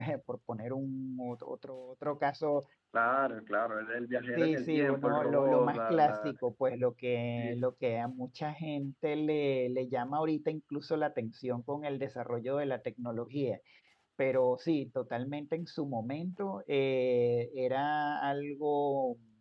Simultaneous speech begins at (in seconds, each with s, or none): 4.4 s